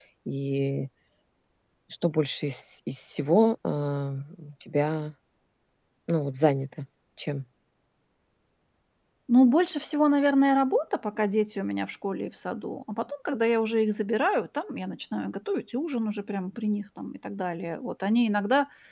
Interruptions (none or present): none